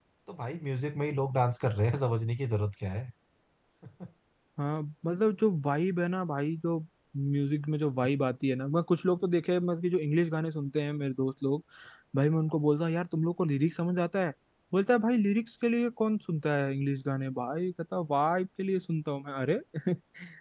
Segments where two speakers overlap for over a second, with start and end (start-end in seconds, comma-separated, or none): none